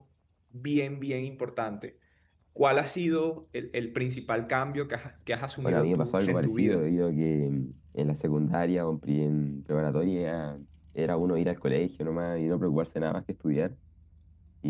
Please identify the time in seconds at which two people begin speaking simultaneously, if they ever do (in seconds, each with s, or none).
5.6 s